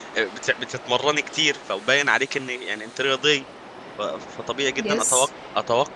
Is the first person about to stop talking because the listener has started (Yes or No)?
No